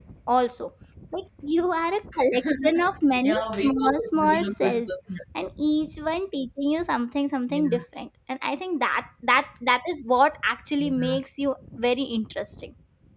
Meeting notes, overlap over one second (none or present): present